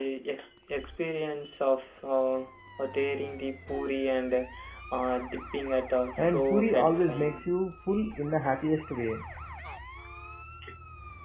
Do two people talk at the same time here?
Yes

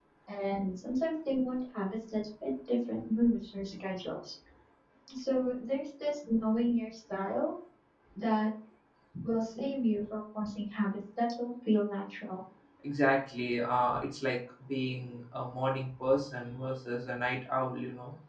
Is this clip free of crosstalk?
Yes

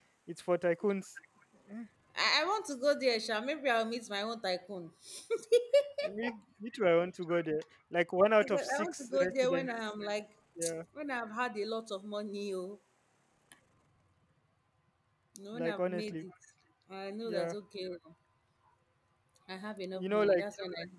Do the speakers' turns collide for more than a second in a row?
Yes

